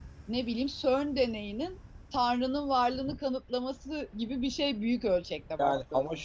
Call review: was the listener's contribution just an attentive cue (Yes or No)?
No